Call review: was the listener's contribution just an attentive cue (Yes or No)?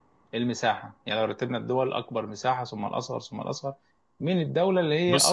Yes